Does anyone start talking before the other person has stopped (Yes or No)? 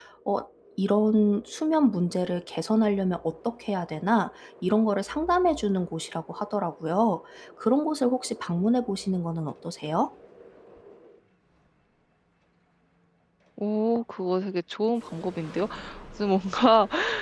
No